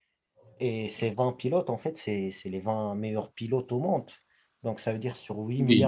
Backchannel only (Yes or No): Yes